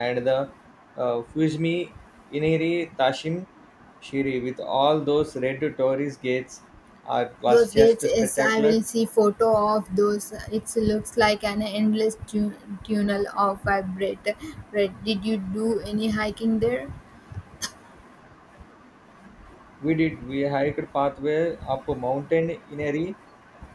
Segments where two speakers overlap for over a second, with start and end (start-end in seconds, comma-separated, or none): 7.5-8.8